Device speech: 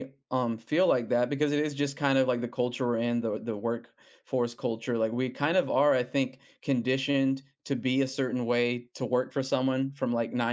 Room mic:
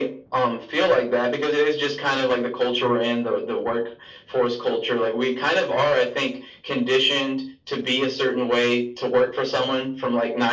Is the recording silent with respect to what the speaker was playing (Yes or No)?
No